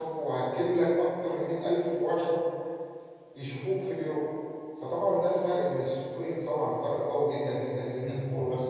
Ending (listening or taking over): taking over